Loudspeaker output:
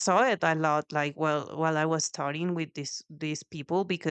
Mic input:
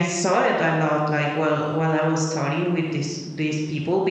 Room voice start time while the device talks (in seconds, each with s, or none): none